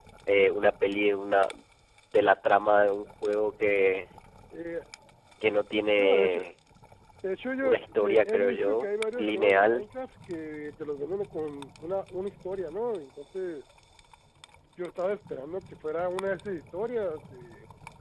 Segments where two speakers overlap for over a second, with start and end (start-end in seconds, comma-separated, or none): 7.6-9.8